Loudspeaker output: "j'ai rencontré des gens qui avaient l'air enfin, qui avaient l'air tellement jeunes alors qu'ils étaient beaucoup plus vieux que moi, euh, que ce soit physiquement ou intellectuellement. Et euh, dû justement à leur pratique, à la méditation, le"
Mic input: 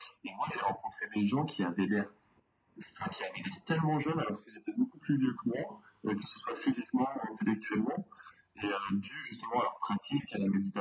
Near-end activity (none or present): none